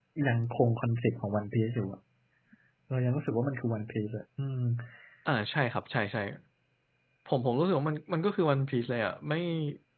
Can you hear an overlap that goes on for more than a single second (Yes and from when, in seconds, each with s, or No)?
No